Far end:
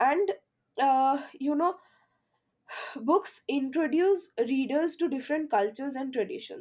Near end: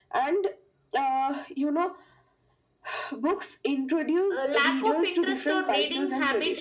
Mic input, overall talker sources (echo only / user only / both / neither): both